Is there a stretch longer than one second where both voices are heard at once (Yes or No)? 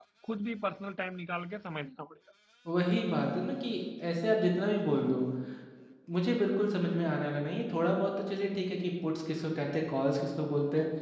No